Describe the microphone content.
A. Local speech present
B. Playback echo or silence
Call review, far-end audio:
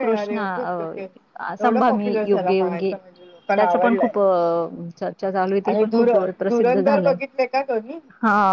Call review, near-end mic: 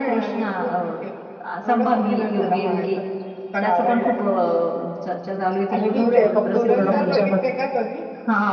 A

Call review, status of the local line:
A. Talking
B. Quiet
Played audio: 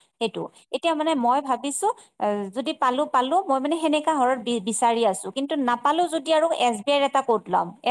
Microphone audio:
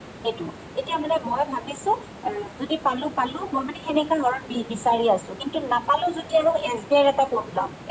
B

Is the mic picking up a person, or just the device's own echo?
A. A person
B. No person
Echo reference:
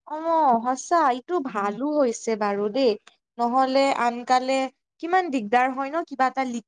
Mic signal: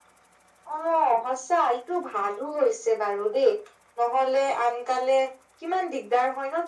B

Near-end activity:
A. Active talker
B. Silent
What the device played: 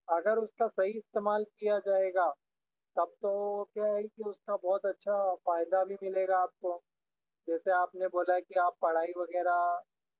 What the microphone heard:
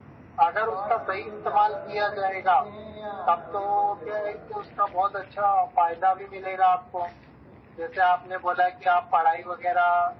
A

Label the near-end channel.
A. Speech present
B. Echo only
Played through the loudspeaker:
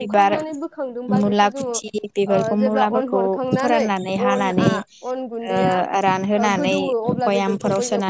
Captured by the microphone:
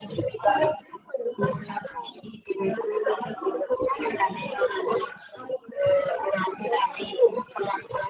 B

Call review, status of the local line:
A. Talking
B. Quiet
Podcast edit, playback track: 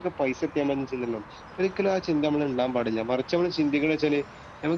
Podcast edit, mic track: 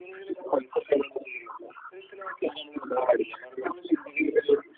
B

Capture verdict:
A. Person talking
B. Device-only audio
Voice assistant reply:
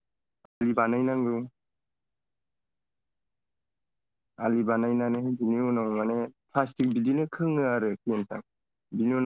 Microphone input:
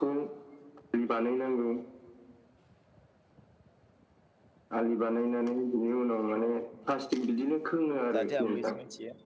A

